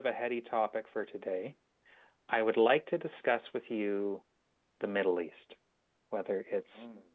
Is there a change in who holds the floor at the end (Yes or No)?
No